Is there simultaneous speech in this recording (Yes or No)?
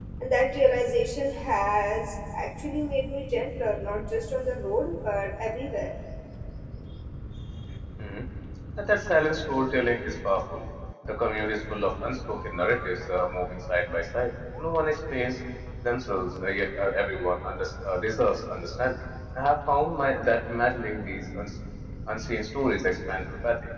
No